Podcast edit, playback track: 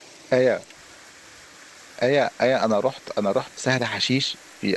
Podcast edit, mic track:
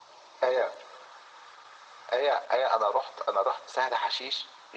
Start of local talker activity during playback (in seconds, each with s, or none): none